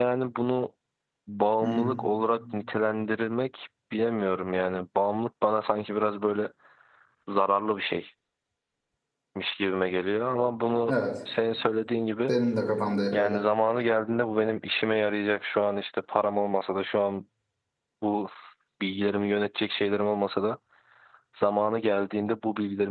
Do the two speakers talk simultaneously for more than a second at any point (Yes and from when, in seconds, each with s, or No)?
No